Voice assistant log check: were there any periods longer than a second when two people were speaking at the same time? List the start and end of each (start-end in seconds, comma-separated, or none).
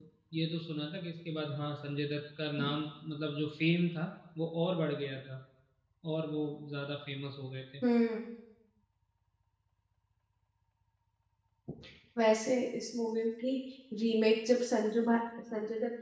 none